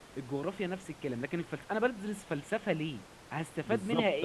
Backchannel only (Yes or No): No